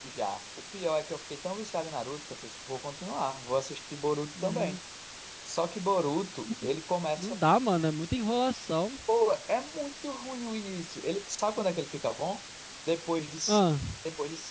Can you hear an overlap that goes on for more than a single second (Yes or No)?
No